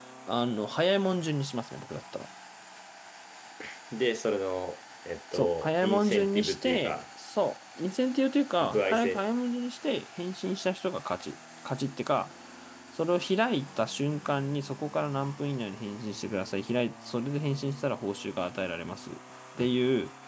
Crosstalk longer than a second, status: present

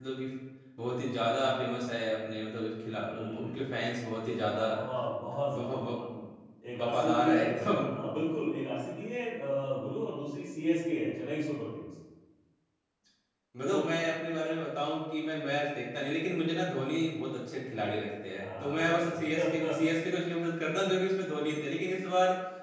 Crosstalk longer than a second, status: present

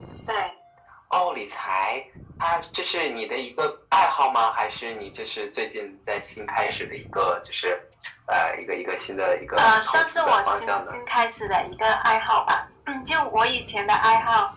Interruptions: present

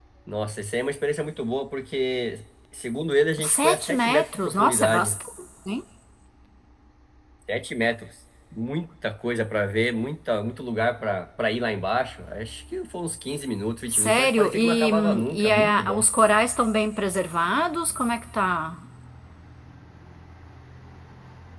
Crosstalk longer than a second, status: present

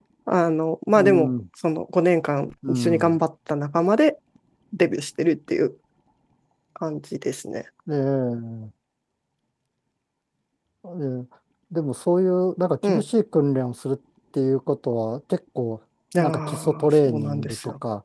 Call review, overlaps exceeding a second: present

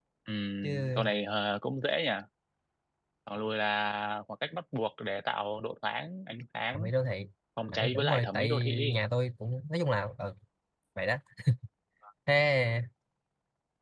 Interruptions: present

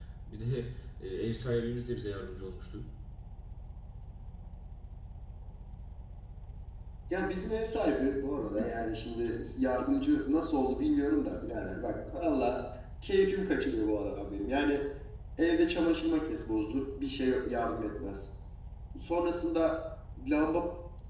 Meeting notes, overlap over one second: none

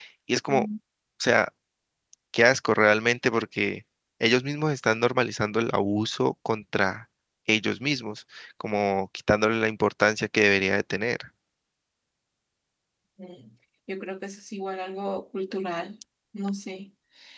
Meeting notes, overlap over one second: none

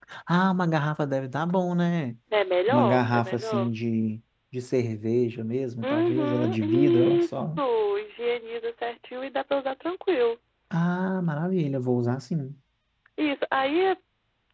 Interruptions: present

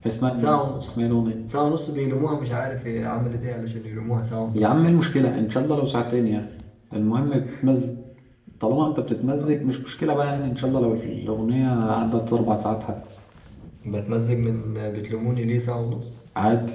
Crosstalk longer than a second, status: none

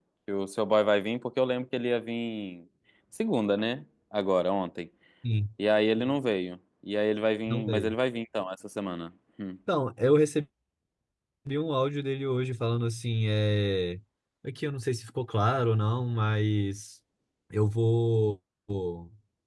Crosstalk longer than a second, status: none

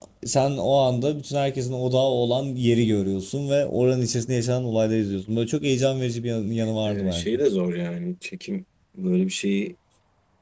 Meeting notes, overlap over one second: none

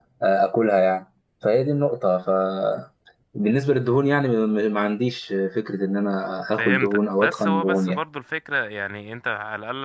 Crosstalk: present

